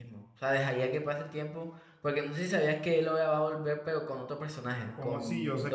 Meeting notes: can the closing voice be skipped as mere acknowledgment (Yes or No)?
No